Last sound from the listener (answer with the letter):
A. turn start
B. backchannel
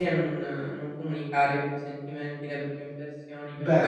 A